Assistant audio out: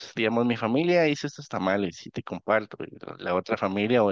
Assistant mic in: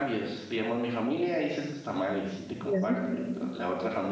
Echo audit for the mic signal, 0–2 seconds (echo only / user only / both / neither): echo only